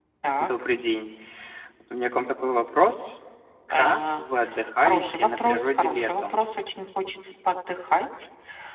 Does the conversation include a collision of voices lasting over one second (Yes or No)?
Yes